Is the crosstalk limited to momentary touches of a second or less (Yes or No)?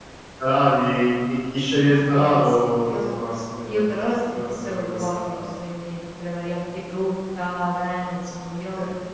No